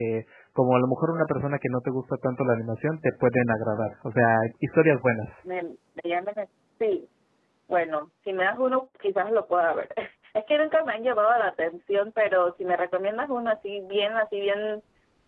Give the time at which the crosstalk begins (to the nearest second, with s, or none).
none